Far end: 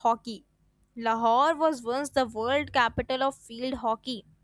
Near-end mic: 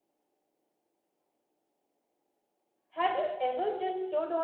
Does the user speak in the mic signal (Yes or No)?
Yes